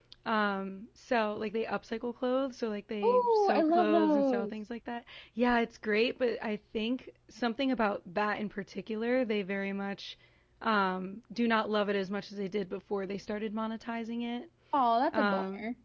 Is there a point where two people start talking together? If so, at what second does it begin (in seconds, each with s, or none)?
3.0 s